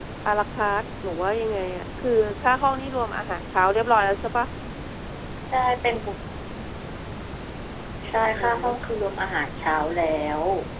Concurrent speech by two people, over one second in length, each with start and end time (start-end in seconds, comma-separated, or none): none